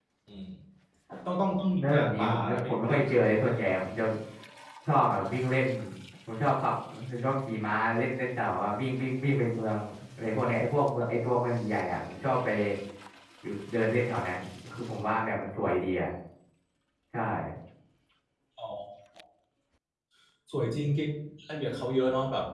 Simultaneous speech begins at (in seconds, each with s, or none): 1.8 s